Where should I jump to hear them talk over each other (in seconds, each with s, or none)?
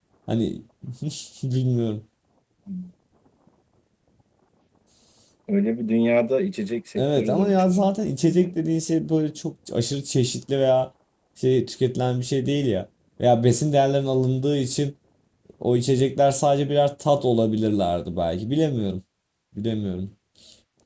7.0 s